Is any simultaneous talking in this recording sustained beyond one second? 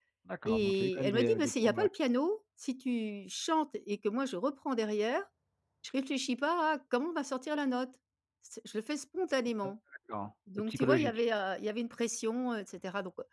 Yes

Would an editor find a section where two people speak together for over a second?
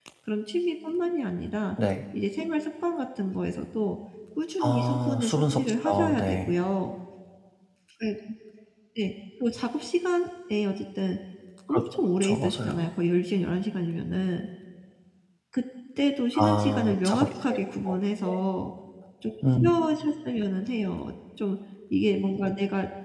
Yes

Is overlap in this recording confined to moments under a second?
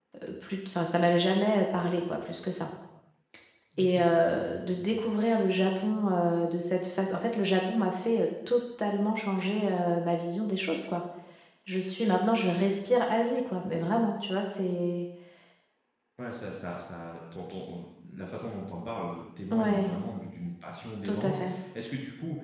Yes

